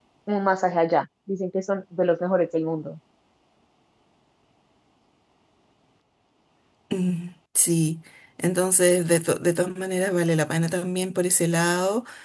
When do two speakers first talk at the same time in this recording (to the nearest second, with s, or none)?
none